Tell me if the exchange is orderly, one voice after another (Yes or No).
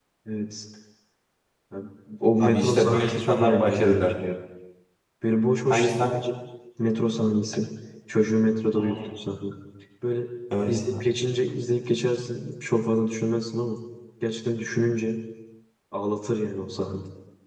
No